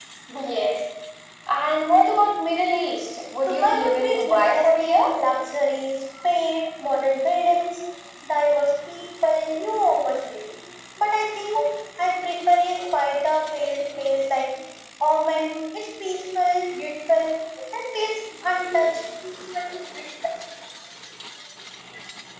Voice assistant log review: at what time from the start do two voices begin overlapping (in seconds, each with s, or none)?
3.5 s